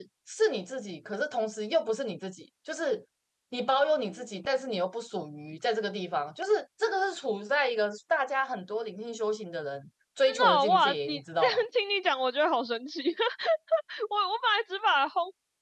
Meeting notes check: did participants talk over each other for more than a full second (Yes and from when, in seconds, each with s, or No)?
Yes, from 10.3 s